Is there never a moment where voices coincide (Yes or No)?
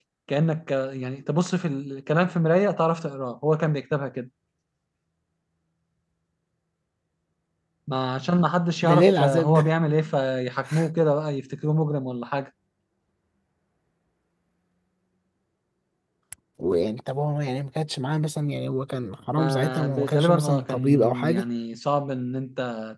No